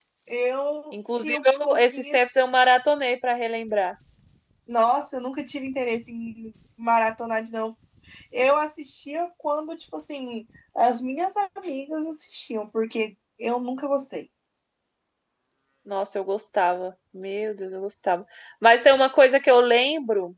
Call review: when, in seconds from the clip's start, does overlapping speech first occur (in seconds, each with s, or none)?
0.9 s